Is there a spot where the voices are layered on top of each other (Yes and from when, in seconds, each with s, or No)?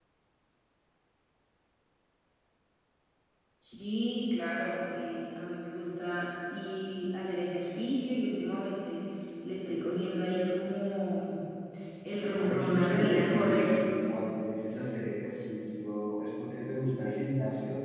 Yes, from 12.3 s